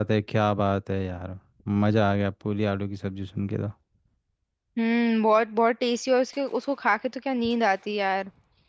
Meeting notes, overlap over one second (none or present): none